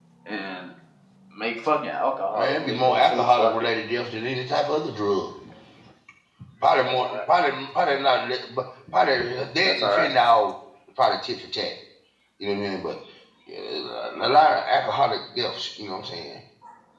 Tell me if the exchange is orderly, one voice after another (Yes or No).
No